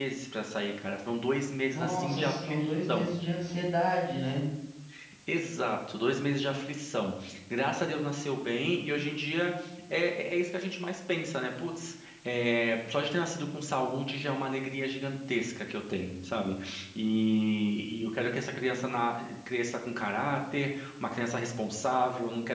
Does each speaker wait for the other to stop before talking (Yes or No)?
No